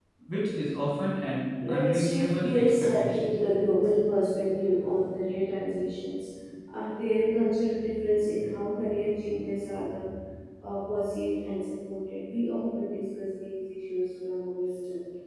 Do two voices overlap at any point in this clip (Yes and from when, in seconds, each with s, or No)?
Yes, from 1.6 s